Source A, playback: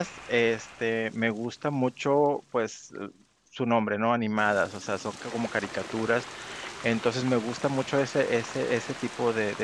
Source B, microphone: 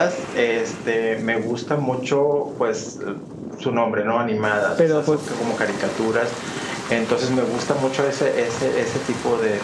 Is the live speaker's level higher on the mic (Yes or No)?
Yes